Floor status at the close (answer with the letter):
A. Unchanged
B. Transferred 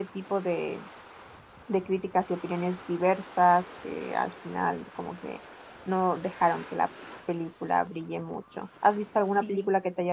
A